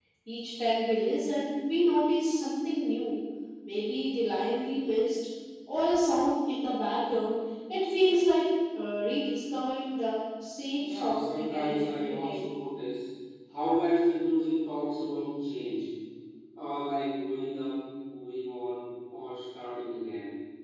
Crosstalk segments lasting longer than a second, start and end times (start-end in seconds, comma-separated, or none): 10.8-12.5